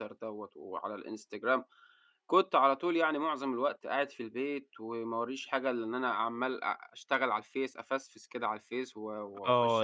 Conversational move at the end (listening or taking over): taking over